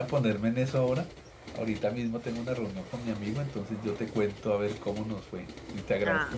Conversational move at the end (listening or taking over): listening